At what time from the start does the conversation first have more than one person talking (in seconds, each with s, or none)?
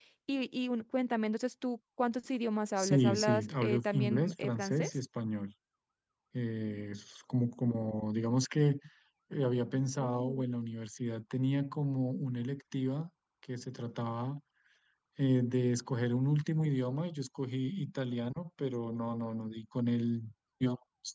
2.8 s